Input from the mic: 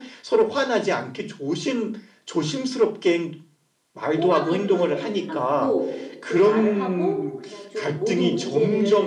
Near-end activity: present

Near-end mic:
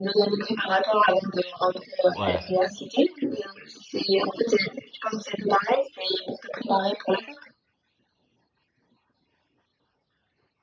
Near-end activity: present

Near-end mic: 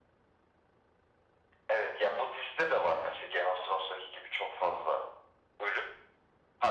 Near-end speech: none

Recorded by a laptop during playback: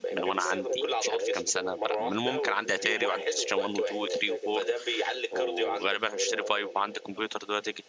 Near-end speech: present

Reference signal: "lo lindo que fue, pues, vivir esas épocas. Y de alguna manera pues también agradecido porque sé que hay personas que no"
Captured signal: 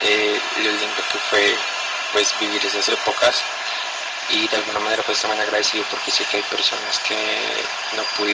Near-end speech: none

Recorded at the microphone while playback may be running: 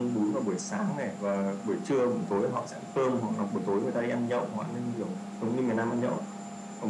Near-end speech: none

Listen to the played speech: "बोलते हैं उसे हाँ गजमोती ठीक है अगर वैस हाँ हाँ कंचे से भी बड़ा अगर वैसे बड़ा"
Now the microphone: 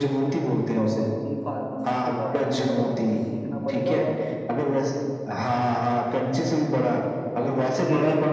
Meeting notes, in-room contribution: present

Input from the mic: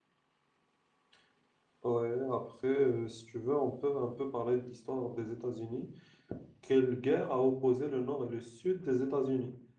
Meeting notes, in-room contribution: present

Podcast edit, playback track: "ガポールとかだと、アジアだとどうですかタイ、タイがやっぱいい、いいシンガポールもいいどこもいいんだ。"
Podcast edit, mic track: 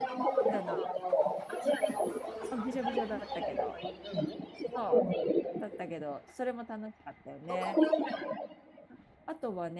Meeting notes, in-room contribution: present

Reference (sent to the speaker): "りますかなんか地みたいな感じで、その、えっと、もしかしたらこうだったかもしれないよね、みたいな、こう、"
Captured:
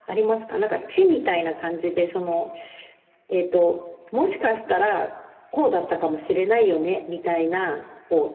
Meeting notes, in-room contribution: none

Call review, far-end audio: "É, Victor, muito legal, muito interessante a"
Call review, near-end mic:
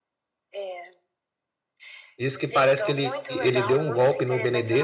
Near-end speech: present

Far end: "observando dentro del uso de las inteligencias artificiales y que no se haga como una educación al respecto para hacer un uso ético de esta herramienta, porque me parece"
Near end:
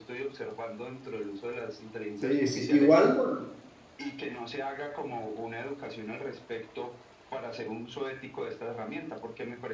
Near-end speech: present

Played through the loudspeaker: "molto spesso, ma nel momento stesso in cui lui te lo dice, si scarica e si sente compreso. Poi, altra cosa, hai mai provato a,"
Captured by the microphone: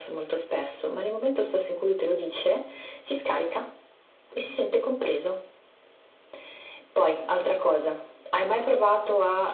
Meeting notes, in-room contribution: none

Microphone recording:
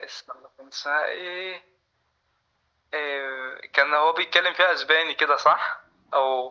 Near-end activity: none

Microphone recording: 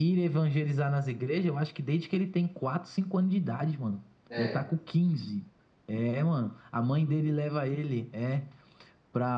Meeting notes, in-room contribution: present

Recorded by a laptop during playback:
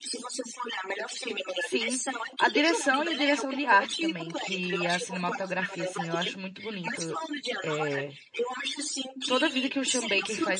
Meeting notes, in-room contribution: present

